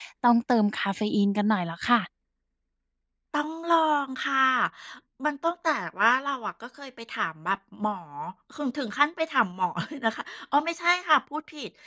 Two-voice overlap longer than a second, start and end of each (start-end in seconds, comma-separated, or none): none